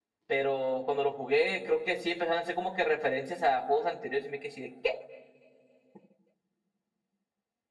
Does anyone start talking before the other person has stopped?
No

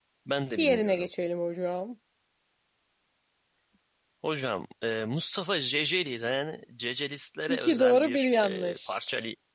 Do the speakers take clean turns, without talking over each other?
No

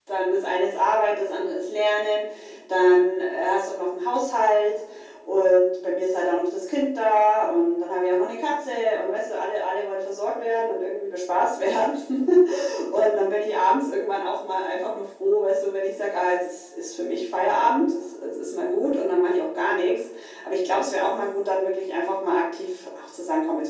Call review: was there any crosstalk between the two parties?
No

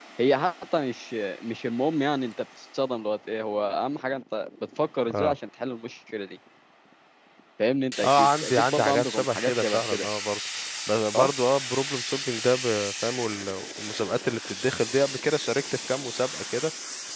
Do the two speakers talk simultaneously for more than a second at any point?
Yes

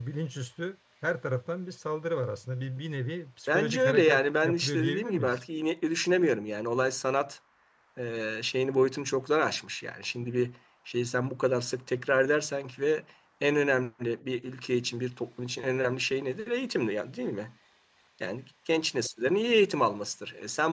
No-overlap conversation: No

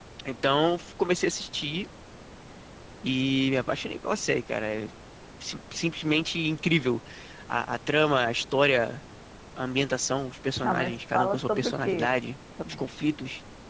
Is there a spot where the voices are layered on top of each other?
Yes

